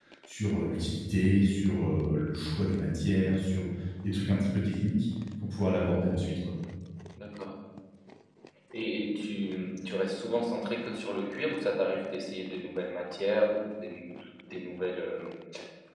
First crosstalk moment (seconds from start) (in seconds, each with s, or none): none